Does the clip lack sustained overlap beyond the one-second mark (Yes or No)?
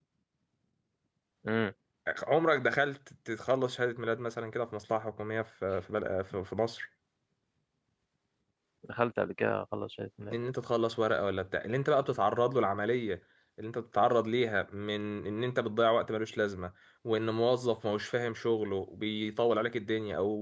Yes